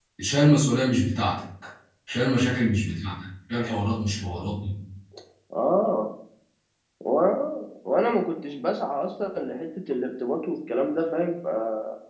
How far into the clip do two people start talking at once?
none

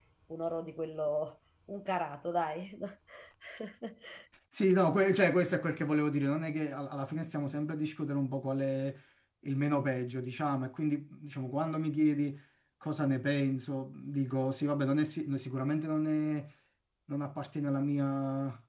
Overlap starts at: none

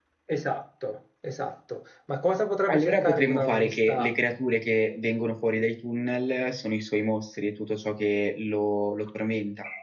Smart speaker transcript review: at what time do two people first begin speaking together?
2.7 s

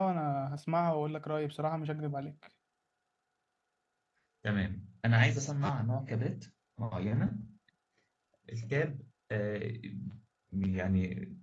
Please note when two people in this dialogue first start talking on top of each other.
none

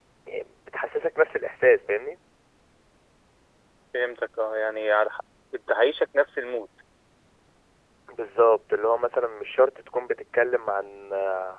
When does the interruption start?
none

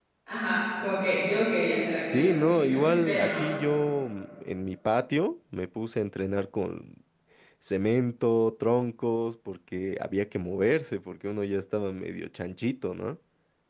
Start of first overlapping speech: 2.1 s

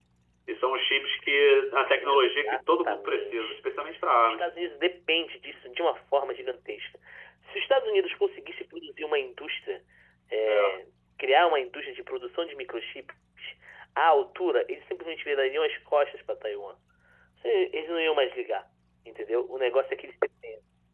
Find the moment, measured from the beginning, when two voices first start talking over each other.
1.9 s

